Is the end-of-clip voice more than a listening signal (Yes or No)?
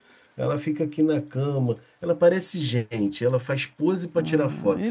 Yes